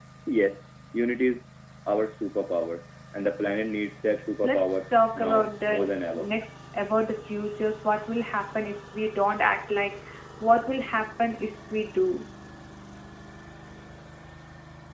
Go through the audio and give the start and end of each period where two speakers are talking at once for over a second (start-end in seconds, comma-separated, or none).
4.4-6.2